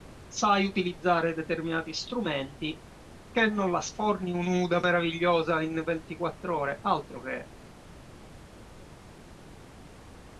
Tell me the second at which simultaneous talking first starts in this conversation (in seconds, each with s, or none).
none